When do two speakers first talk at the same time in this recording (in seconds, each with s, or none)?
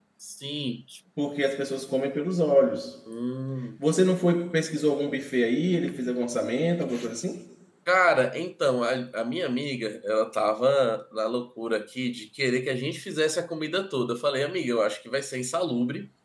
none